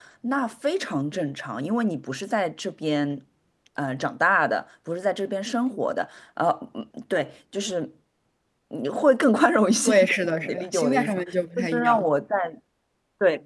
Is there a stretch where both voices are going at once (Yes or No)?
Yes